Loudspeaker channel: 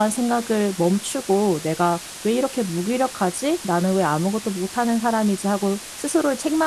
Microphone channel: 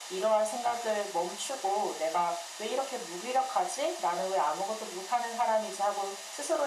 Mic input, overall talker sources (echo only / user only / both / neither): echo only